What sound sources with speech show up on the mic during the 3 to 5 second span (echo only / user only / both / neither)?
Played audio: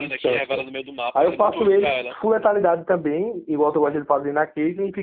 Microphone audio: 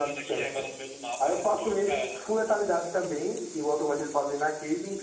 echo only